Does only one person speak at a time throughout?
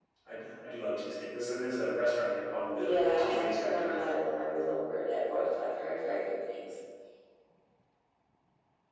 No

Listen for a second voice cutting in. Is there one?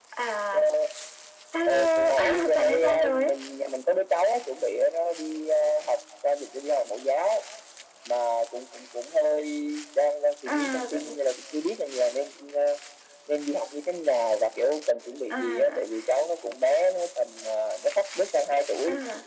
Yes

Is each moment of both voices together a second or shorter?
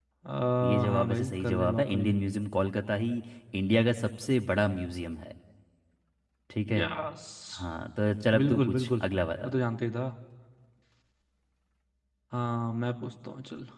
No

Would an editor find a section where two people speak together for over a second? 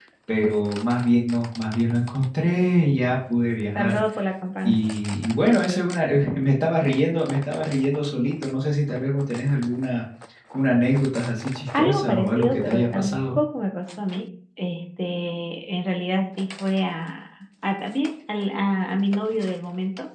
Yes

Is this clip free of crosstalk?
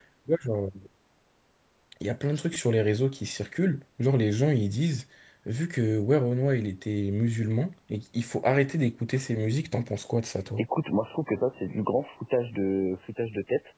Yes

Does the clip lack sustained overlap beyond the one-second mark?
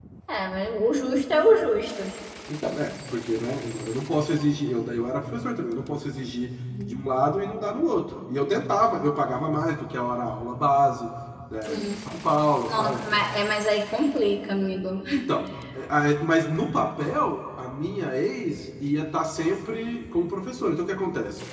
Yes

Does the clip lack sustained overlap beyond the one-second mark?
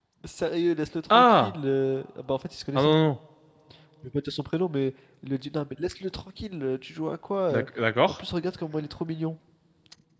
Yes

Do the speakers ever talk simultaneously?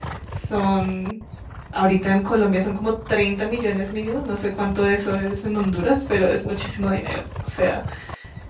No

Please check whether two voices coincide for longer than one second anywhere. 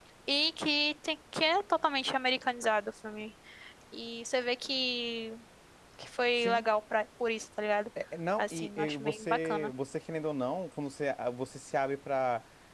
Yes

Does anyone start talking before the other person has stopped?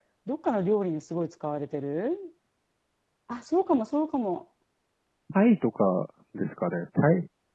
No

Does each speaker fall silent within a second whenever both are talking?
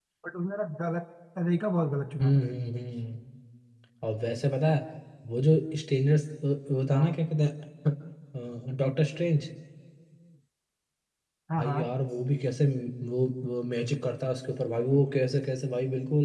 Yes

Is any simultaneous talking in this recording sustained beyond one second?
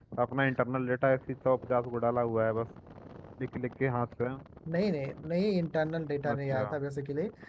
No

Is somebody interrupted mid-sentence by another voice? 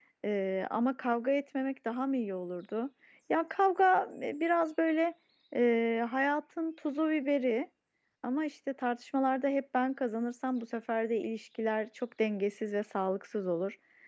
No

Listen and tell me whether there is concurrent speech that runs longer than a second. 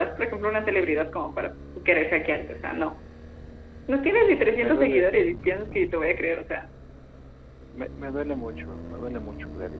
No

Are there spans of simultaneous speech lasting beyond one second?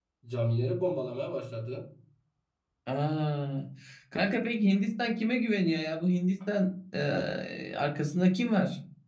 No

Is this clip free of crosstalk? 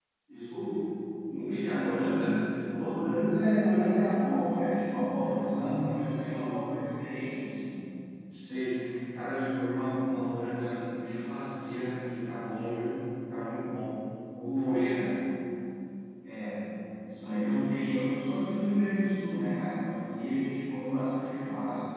No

